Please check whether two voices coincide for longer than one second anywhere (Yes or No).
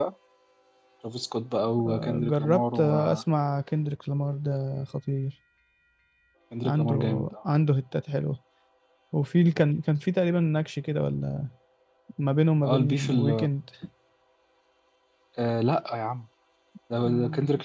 Yes